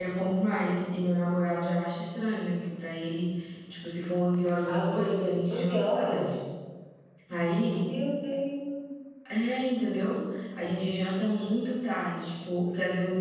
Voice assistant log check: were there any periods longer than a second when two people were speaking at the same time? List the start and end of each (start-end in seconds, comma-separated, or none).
4.7-6.3